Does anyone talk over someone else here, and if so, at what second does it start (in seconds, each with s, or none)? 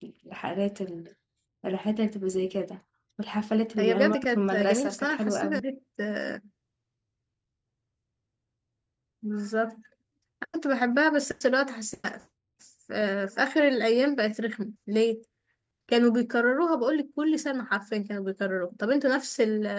3.8 s